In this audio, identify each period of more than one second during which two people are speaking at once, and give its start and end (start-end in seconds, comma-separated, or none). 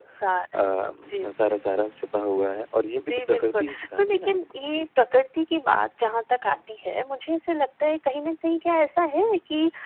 3.0-4.8